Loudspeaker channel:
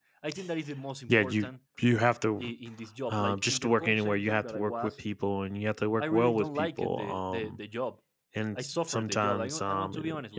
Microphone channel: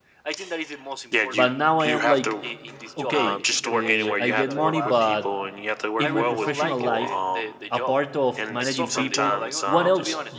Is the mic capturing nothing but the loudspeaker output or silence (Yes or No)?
No